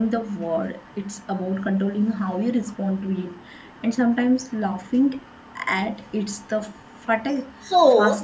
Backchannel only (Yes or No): No